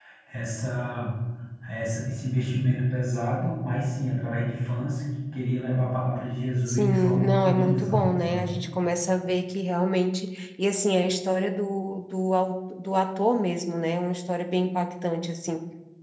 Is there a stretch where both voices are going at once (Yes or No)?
Yes